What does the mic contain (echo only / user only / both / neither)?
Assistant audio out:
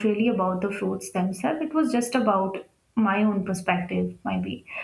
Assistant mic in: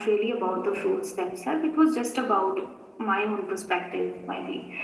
echo only